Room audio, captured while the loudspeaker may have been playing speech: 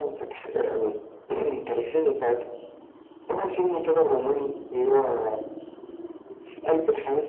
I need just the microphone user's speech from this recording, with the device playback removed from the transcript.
none

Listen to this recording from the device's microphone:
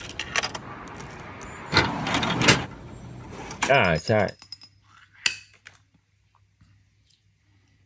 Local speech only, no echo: อ่าใช่

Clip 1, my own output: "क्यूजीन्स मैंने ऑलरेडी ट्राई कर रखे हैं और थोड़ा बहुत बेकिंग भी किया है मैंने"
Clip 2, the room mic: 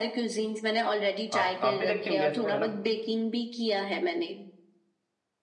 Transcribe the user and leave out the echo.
आप आप भी देखती होंगे ऐसा तो है ना

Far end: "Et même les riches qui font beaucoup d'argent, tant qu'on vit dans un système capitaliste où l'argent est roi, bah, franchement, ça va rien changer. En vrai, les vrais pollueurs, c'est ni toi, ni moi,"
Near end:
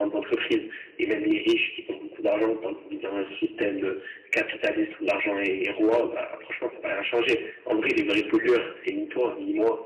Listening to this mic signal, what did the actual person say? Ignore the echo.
none

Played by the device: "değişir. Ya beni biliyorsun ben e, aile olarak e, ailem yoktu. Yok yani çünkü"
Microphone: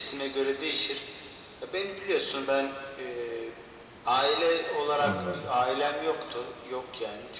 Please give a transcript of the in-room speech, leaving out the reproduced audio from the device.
Anladım.

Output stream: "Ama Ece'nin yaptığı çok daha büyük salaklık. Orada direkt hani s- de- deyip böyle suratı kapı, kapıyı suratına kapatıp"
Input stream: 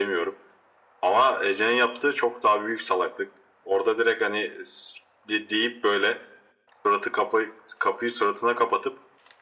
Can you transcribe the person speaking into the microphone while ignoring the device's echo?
none

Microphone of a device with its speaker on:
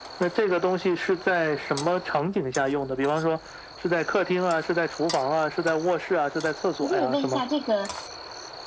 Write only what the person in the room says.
你可以问一下这个，

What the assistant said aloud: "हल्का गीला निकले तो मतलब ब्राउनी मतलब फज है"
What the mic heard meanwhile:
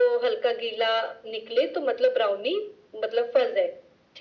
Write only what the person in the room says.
none

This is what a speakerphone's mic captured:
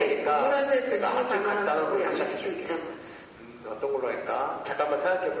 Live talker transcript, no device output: none

